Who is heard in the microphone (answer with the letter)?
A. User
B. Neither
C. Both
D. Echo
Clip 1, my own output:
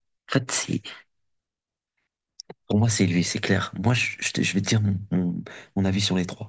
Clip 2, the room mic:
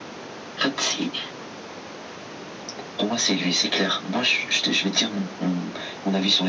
D